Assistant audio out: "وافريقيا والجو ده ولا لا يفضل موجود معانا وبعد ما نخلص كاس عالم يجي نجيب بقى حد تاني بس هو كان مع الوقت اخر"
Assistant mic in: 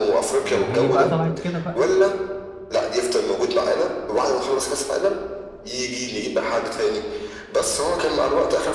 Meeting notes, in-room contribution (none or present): present